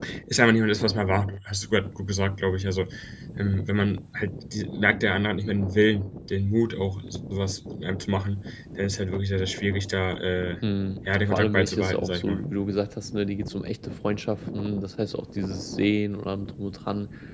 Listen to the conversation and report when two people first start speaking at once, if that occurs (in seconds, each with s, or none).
11.1 s